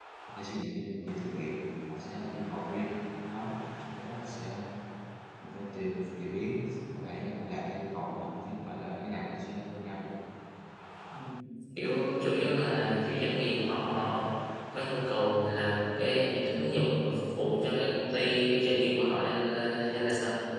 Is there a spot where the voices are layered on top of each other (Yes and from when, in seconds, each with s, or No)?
No